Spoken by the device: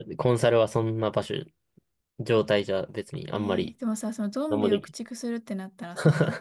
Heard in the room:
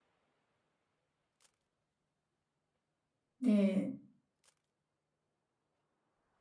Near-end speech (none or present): present